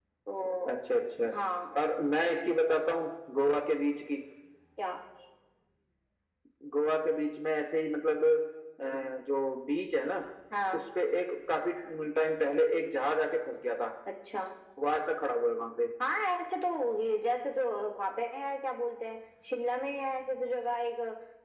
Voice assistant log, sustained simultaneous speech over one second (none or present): none